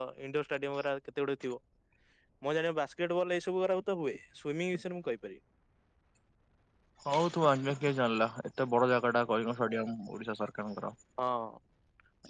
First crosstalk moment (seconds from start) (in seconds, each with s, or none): none